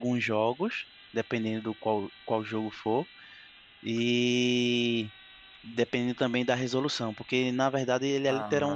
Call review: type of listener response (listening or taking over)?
listening